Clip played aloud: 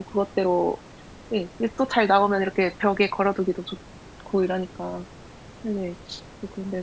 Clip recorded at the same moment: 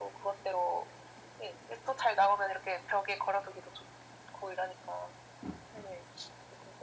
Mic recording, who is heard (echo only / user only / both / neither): echo only